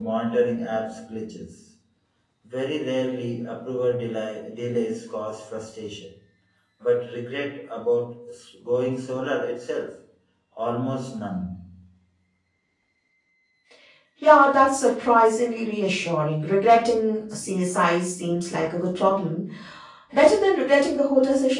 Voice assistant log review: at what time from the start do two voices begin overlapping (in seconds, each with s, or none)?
none